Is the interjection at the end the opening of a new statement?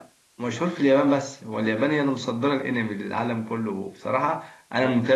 No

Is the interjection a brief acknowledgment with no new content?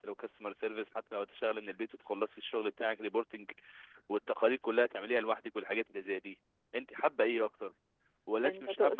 Yes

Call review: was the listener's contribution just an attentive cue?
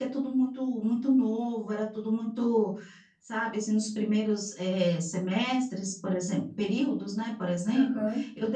Yes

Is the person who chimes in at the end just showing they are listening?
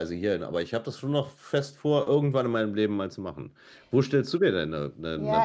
No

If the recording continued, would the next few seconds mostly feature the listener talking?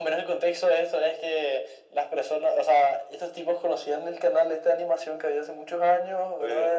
No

